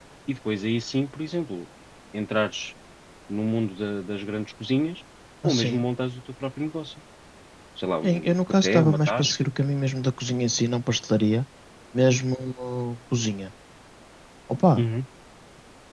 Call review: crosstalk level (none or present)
present